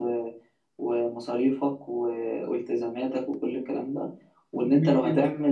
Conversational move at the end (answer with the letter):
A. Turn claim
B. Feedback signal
B